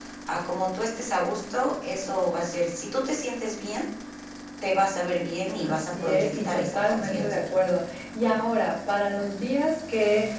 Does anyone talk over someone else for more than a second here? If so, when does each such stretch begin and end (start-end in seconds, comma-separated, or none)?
5.6-7.4